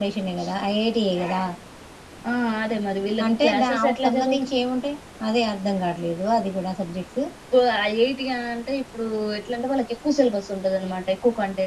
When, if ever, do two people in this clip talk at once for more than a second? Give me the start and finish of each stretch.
3.2-4.5

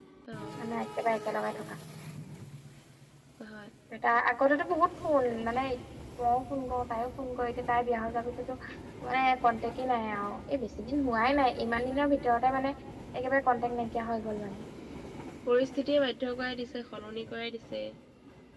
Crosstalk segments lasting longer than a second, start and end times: none

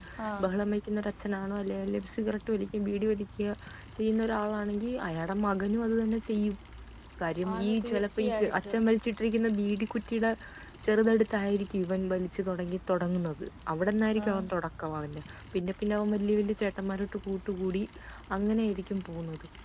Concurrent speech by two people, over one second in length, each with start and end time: 7.5-8.8

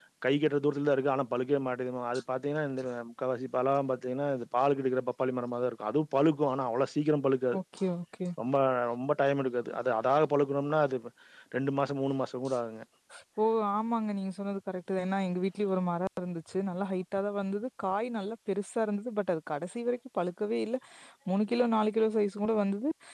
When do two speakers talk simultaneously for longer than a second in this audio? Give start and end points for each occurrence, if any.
none

